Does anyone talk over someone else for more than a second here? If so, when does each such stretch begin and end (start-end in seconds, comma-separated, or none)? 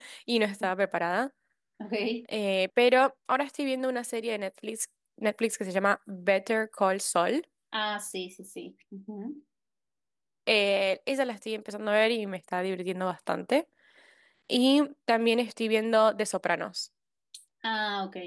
none